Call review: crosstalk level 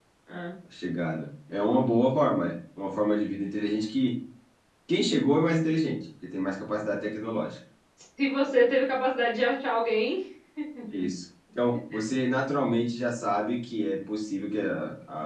none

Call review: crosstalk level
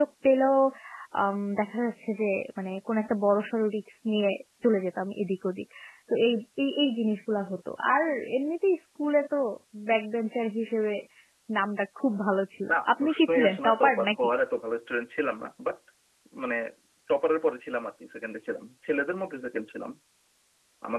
present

